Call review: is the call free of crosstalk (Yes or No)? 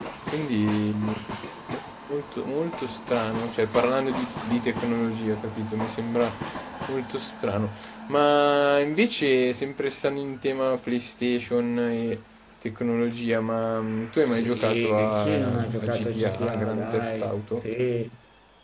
No